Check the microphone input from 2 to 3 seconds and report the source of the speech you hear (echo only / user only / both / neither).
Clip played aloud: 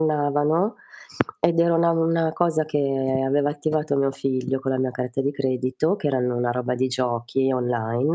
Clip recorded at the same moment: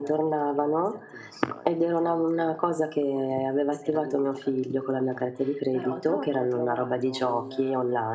both